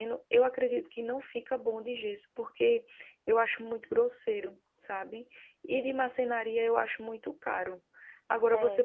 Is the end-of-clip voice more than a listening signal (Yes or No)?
No